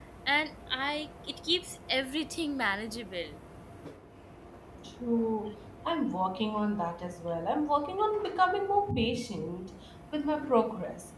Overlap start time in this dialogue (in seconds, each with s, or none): none